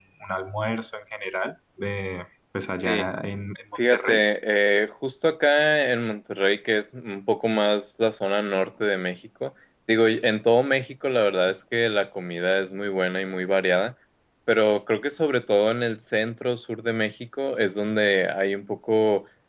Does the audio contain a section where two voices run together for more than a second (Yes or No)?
No